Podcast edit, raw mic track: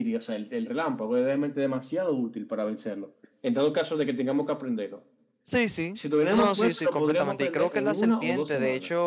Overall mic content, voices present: both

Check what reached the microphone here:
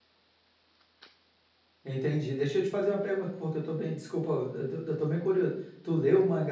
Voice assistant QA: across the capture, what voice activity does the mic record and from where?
user only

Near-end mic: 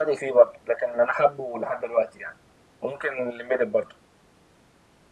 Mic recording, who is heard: echo only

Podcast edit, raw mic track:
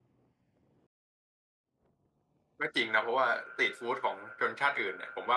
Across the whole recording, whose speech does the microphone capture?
user only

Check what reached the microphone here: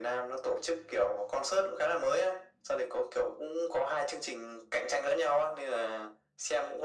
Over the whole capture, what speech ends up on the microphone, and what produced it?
echo only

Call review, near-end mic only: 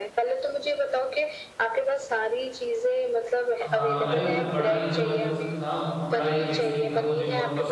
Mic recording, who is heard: both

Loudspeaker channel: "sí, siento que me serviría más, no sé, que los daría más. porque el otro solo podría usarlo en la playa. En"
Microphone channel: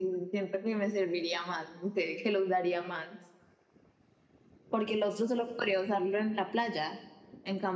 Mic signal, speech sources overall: echo only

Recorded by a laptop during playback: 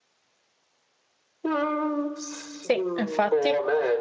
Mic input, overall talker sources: both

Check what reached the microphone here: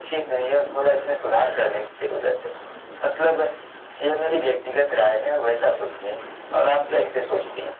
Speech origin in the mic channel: echo only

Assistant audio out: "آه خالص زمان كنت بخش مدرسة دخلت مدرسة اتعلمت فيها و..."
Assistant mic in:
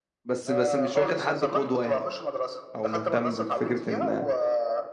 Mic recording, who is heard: both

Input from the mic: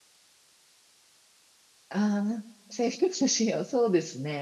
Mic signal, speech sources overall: user only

